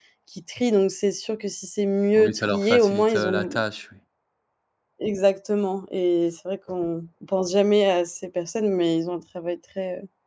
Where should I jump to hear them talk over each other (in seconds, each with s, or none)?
2.2 s